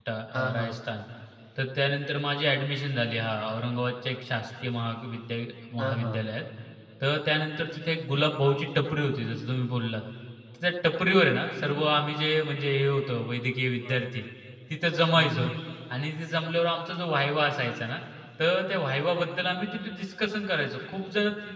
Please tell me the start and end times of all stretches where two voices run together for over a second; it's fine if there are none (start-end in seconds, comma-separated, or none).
none